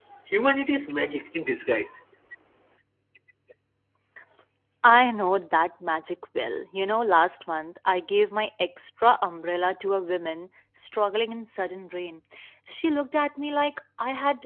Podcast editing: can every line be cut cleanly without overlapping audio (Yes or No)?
Yes